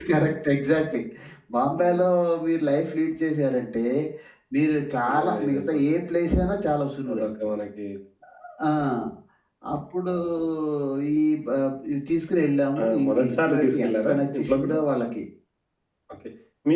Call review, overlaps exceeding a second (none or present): present